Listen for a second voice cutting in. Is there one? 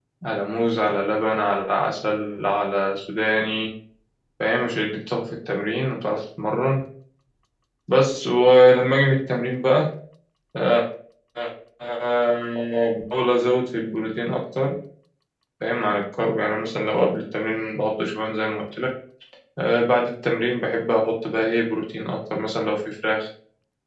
No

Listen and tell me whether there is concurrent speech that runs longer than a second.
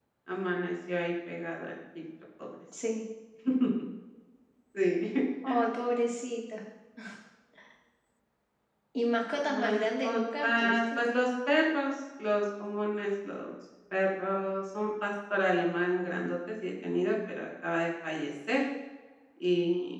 Yes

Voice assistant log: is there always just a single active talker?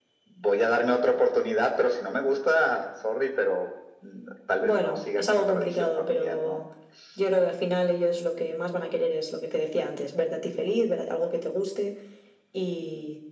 No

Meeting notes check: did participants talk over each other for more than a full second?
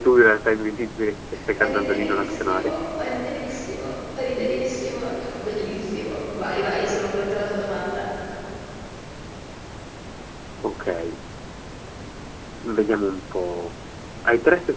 Yes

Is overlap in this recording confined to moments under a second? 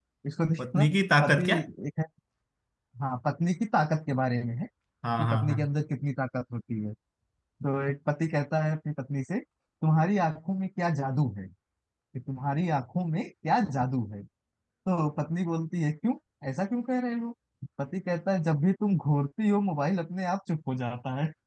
Yes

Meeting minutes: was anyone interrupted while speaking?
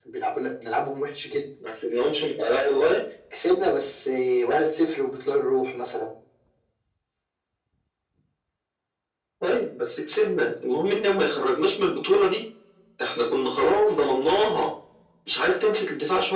No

